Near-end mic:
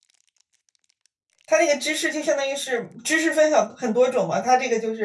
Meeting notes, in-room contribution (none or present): present